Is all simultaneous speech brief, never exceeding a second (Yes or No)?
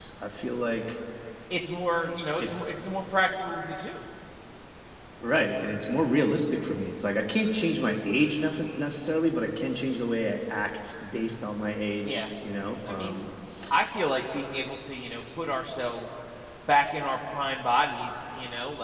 Yes